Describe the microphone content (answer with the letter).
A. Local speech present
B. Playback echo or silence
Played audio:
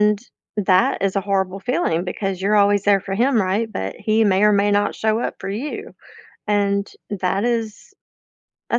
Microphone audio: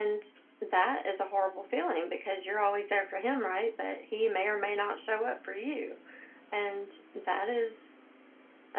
B